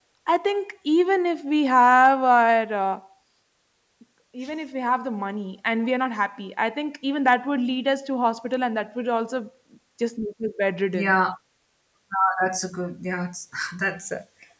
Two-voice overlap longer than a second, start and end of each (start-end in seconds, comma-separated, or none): none